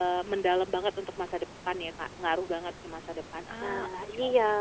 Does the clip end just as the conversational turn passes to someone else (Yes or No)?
Yes